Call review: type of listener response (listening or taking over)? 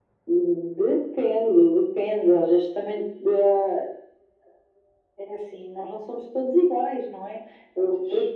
listening